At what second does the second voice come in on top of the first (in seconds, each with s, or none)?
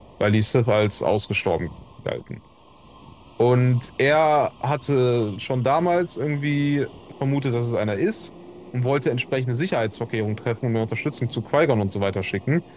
none